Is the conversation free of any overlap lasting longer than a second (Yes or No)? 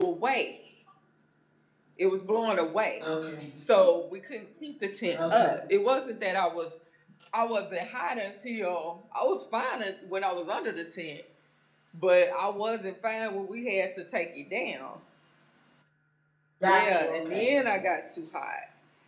No